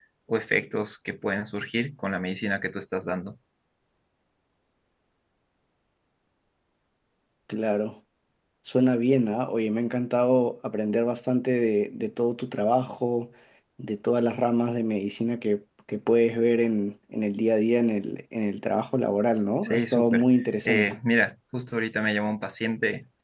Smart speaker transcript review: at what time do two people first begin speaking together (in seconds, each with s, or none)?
19.6 s